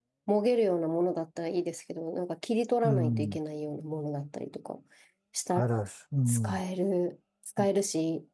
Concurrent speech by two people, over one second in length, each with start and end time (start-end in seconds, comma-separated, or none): none